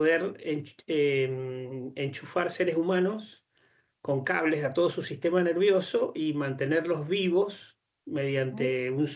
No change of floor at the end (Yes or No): Yes